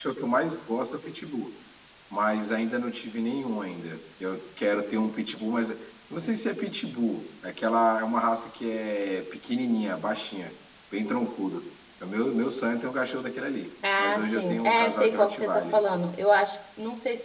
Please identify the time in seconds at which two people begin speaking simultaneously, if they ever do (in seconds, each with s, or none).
13.8 s